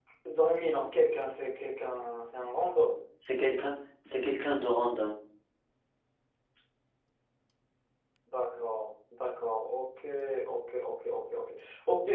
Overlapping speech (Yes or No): No